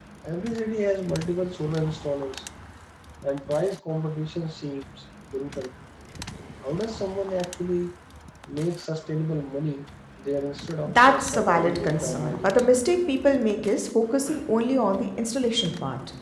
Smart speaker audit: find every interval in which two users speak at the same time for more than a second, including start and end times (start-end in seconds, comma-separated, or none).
10.8-12.7